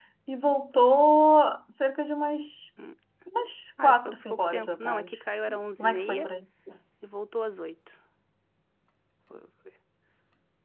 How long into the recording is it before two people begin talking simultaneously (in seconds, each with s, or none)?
3.8 s